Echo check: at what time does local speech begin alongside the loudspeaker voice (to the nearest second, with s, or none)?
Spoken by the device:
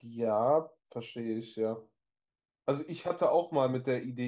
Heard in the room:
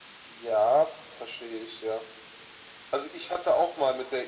none